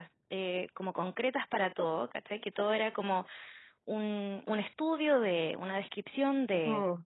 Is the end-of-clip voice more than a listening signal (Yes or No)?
No